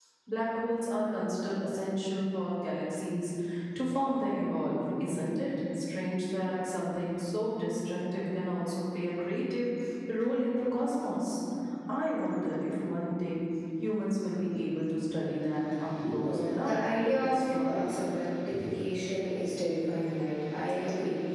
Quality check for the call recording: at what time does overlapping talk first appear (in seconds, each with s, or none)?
16.0 s